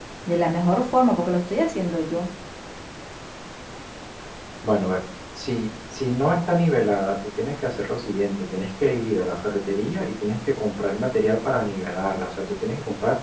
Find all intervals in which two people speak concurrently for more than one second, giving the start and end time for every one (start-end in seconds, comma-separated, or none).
none